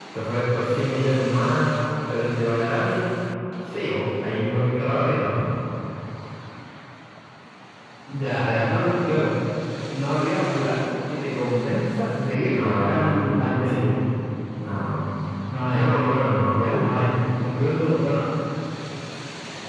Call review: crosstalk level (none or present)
present